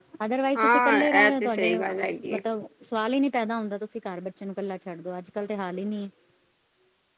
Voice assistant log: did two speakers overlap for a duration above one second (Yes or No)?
Yes